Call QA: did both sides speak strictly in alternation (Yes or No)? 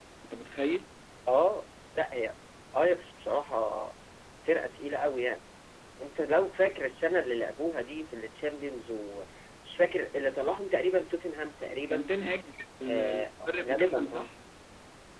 No